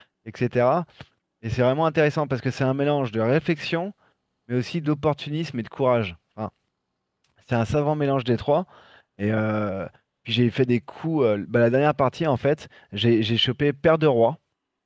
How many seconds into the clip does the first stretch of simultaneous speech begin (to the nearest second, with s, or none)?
none